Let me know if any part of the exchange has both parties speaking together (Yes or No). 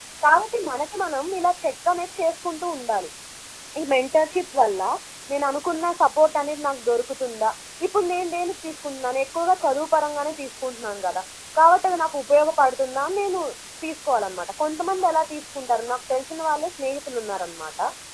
No